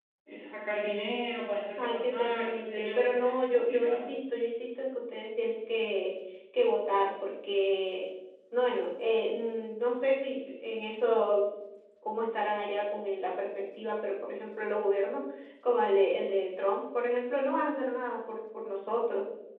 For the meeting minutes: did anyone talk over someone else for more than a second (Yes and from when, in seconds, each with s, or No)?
Yes, from 1.8 s